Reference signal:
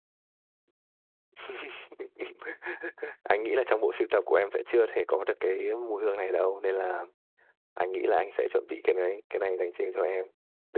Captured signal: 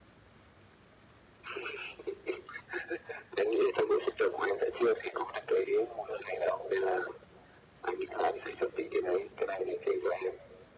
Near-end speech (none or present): none